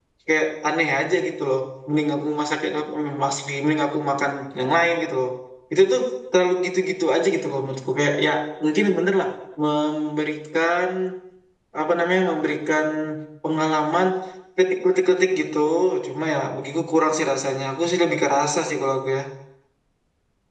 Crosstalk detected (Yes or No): No